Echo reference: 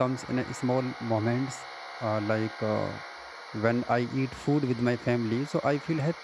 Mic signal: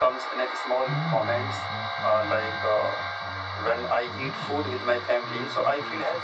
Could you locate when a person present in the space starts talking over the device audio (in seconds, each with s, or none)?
0.8 s